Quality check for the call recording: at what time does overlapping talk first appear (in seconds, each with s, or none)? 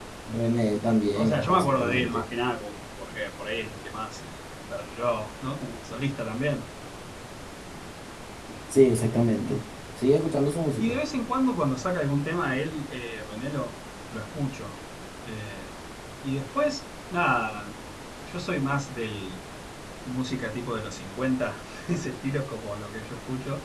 0.8 s